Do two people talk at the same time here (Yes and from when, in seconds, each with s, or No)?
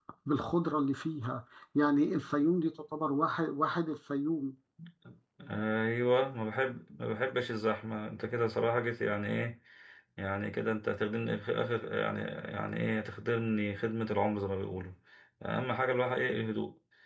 No